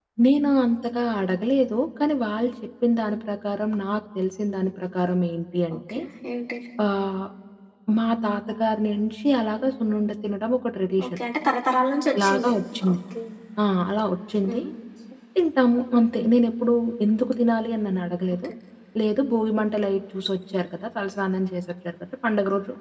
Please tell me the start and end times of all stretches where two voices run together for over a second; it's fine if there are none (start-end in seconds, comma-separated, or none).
none